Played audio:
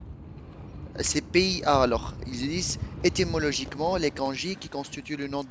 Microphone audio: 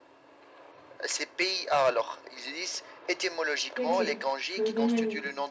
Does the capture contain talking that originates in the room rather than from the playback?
Yes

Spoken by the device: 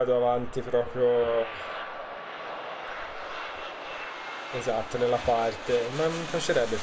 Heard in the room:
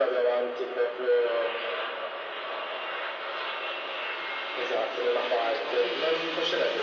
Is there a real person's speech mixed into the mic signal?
Yes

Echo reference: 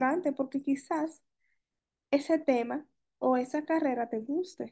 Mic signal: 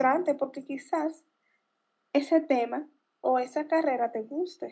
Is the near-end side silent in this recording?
Yes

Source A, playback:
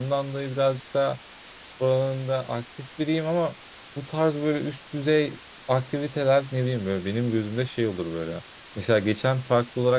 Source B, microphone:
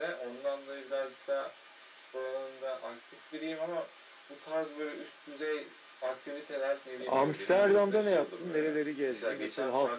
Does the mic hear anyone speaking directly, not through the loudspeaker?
Yes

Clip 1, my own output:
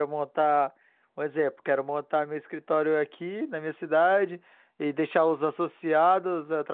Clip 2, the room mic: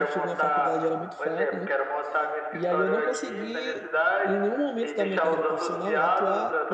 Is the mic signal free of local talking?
No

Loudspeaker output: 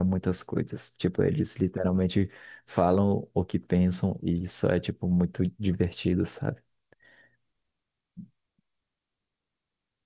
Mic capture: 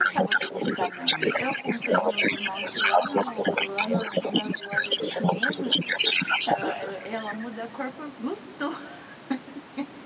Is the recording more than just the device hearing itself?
Yes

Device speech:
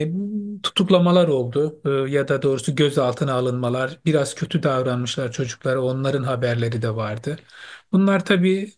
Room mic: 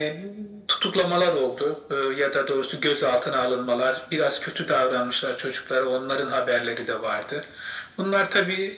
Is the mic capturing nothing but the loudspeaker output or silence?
Yes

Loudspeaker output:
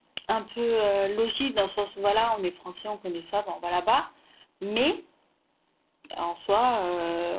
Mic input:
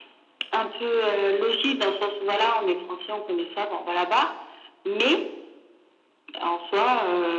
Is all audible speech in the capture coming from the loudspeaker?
Yes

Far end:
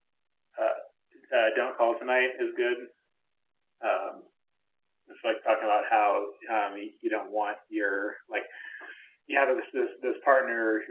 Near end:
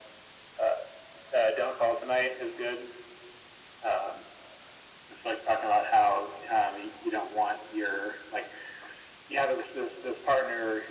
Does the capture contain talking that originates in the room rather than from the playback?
No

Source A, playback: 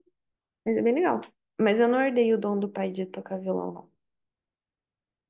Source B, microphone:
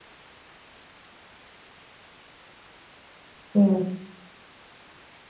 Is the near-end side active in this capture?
Yes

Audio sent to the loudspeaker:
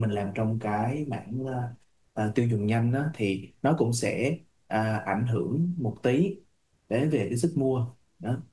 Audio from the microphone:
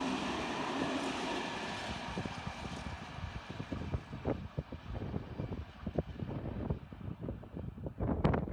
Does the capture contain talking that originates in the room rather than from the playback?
No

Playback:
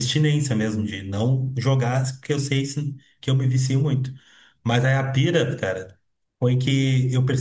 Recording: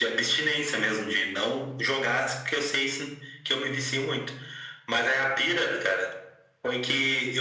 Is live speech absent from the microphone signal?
Yes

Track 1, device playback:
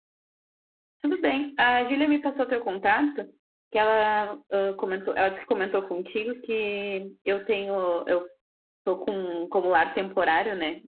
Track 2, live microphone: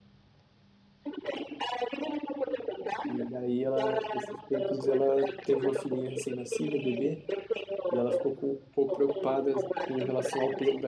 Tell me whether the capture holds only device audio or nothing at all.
No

